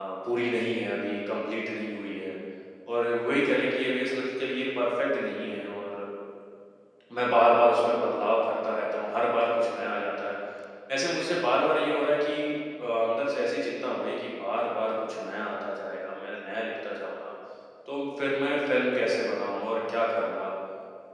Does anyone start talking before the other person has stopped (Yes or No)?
No